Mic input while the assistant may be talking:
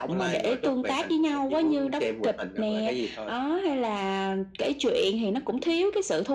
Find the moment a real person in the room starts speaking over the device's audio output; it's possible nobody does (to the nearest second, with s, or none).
none